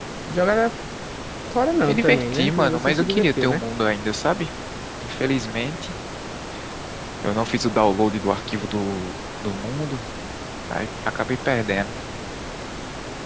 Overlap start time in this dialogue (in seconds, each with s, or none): 1.9 s